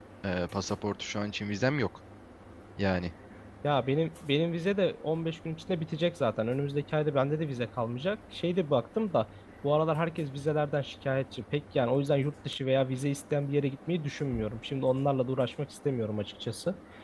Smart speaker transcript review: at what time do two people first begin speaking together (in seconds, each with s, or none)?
none